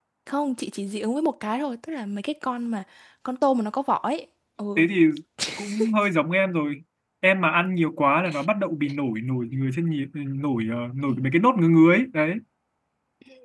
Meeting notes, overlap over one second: none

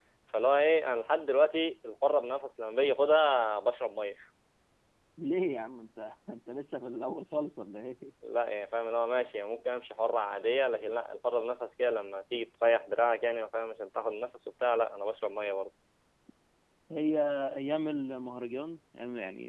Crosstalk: none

